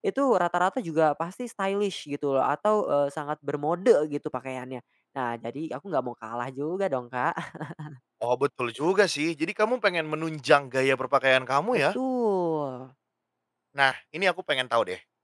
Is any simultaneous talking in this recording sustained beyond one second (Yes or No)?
No